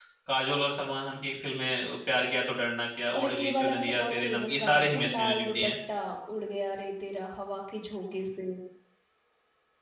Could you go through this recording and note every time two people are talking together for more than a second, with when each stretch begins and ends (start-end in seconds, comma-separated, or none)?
3.2-5.7